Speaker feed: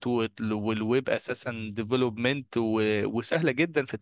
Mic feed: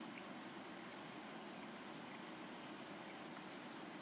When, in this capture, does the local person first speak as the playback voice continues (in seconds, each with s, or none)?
none